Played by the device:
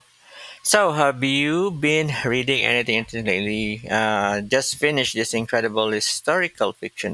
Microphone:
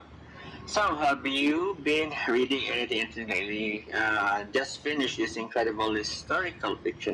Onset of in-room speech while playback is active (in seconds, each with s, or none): none